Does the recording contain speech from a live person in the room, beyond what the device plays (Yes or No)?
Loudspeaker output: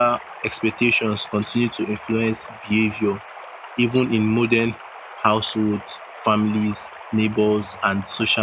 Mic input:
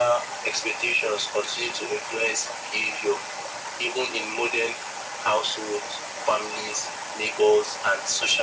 No